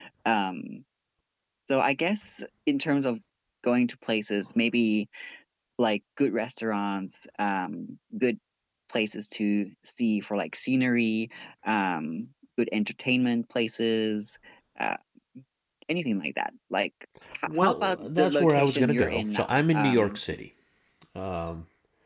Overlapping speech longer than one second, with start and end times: 17.5-20.2

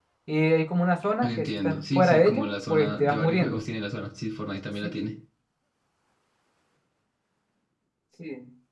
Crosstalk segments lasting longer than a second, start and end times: 1.2-3.6

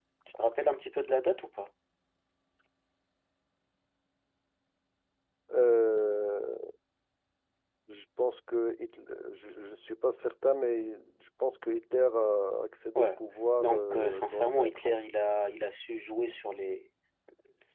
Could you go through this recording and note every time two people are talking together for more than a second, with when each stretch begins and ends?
13.6-15.0

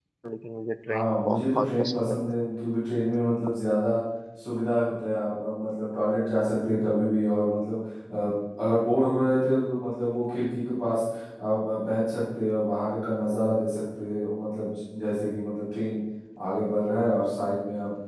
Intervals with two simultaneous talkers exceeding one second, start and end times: 0.9-2.2

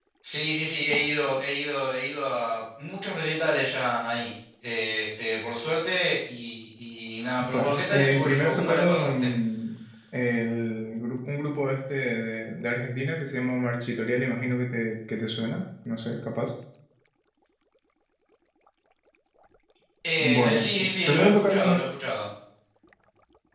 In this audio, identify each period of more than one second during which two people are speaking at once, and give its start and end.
7.5-9.3, 20.2-21.8

